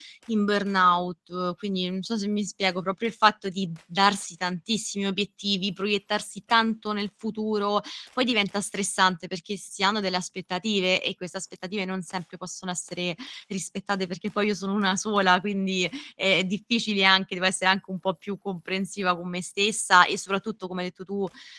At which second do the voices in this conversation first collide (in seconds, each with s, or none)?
none